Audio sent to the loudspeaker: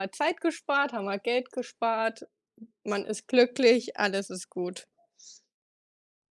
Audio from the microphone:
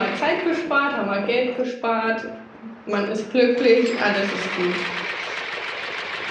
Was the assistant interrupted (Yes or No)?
No